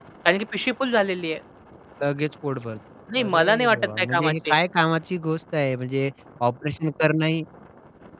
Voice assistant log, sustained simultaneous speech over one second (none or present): present